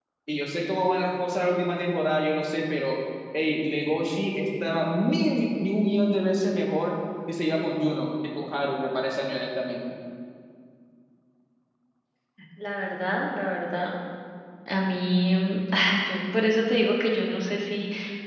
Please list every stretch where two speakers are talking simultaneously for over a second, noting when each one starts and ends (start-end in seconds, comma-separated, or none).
none